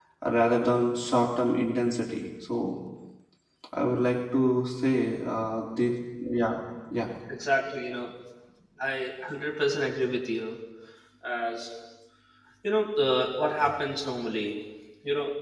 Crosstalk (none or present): none